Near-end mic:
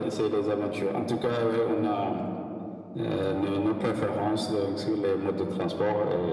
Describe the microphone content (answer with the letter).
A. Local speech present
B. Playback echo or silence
B